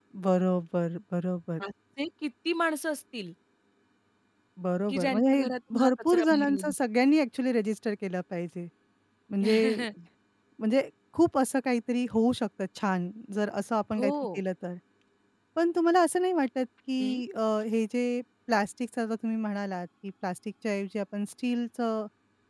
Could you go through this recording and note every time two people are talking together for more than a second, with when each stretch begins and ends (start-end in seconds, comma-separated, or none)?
4.9-6.7